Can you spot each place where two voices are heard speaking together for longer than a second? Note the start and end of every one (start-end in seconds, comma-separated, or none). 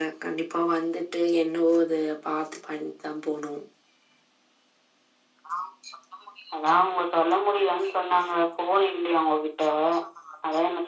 none